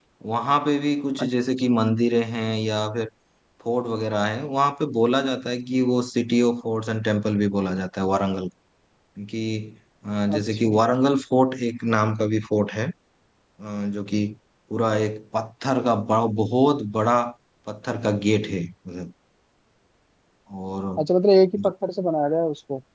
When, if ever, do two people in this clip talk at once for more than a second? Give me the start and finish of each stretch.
none

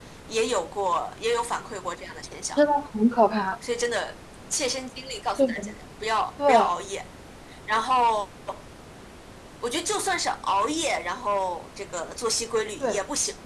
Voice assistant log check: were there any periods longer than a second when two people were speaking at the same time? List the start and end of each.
none

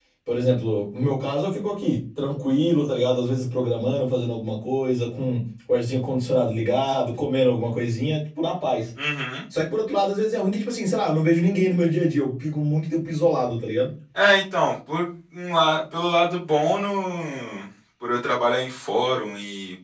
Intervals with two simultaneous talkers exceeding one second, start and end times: none

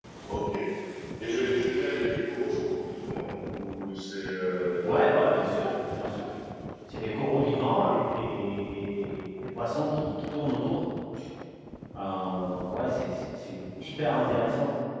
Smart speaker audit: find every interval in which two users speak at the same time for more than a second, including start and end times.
none

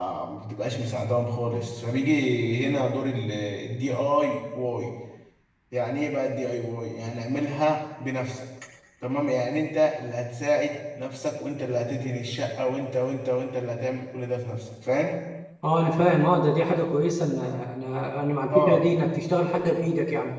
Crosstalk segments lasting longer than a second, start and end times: none

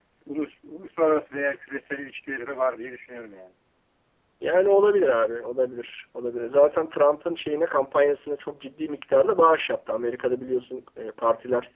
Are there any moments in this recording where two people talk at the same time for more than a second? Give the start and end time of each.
none

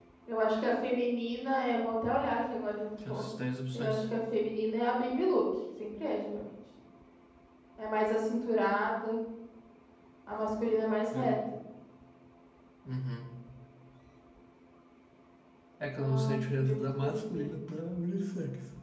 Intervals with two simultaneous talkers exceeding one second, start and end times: 15.9-17.5

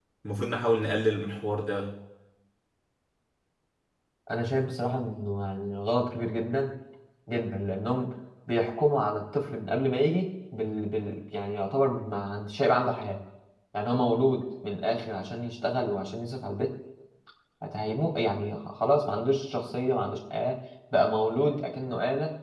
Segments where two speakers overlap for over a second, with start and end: none

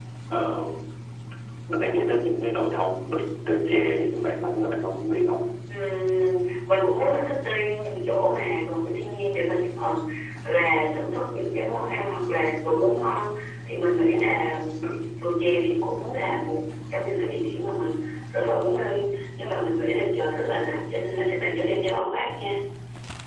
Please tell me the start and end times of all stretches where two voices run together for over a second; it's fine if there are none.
none

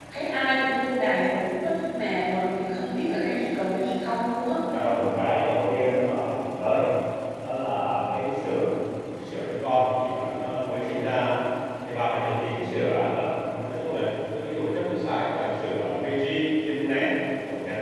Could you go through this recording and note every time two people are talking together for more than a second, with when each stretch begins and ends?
none

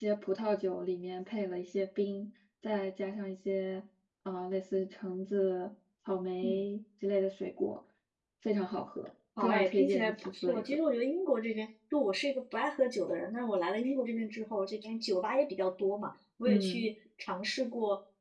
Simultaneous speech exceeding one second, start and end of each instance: 9.4-10.8

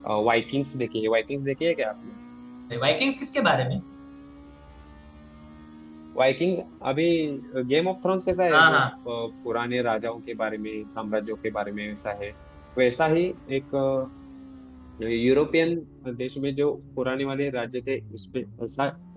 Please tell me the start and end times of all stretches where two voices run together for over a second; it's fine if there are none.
none

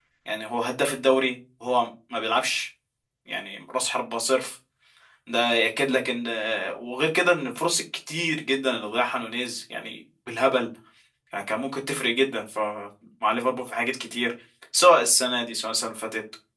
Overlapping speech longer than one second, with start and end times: none

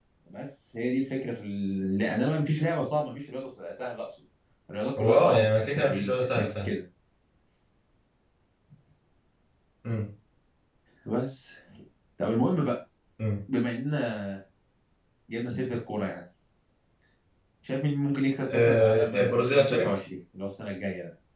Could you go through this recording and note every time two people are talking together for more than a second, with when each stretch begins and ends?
5.0-6.7, 18.5-19.9

